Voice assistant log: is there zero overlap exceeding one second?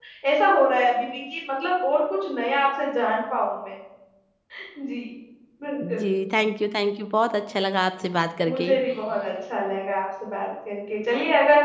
Yes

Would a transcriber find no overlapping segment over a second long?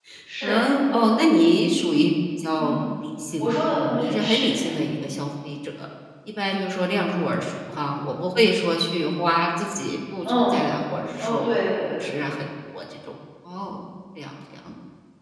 No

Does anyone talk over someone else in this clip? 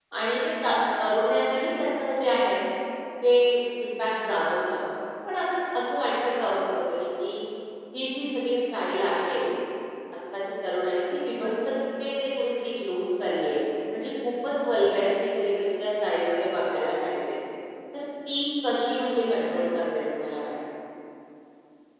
No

